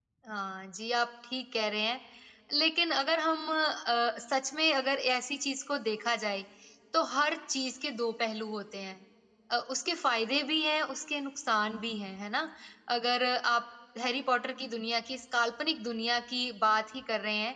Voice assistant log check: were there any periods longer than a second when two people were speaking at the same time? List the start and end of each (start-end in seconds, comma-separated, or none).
none